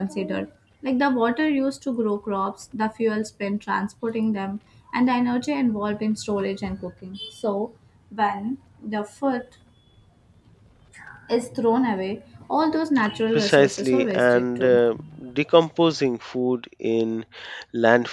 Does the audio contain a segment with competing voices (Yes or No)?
Yes